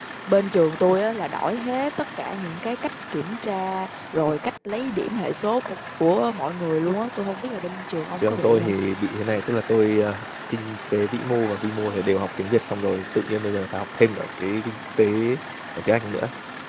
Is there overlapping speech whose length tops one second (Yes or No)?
No